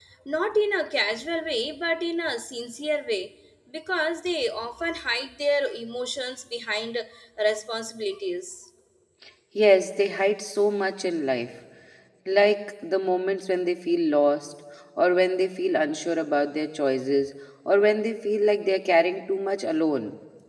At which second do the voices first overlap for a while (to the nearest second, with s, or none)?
none